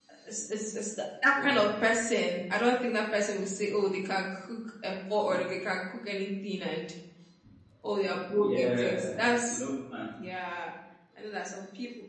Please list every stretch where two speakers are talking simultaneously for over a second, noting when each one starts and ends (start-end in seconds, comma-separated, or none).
8.4-9.6